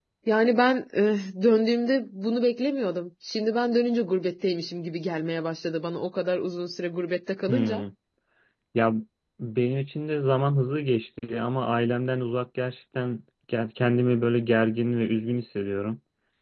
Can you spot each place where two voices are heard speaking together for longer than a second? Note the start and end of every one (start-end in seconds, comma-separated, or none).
none